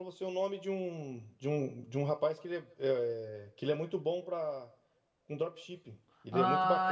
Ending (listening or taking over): taking over